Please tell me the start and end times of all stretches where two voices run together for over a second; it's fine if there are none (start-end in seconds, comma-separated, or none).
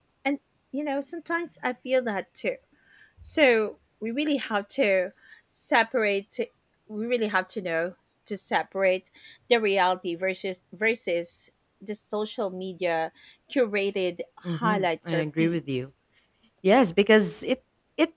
14.5-15.8